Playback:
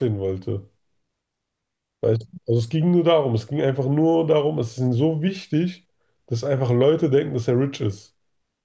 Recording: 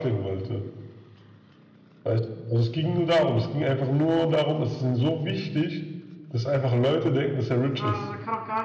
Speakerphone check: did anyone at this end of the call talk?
Yes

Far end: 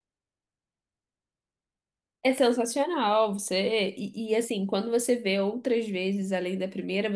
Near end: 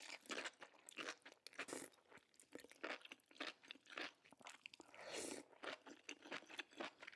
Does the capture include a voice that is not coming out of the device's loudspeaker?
No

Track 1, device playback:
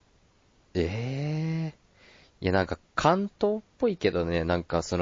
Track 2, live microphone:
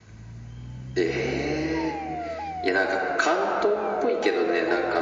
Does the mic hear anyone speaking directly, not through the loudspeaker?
No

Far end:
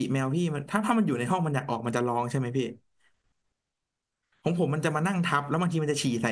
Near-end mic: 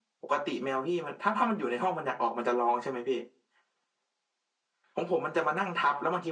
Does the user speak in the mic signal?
No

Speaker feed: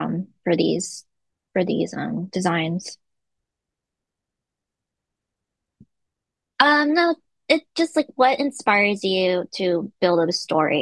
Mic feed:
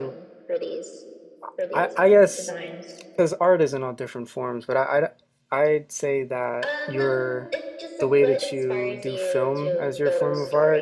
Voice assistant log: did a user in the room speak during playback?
Yes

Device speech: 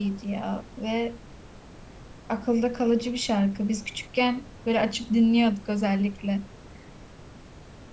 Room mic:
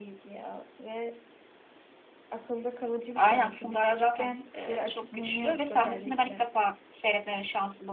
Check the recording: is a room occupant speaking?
Yes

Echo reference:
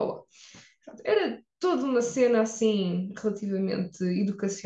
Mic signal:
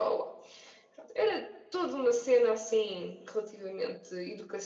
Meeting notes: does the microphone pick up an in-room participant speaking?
No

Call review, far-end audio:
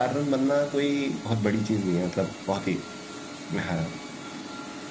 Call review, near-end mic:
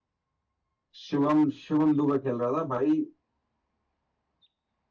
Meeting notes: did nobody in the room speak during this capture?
No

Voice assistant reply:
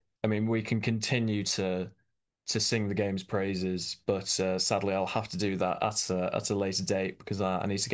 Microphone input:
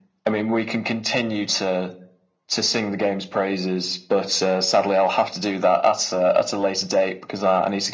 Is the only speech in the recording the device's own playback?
Yes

